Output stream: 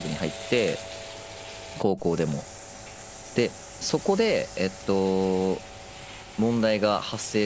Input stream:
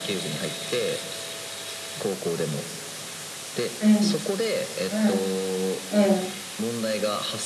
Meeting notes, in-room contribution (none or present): present